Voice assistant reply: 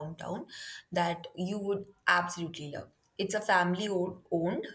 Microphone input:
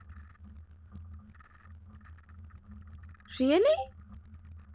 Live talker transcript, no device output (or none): Really?